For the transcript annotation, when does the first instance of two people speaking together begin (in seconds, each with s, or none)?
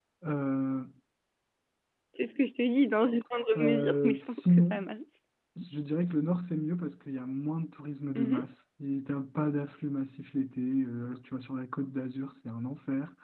3.6 s